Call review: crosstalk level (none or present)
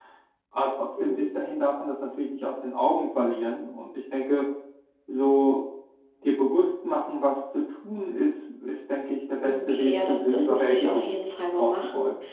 present